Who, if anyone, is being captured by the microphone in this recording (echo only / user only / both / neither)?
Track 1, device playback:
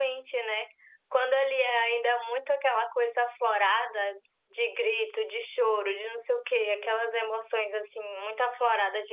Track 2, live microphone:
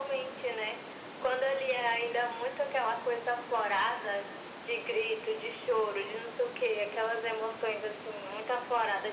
echo only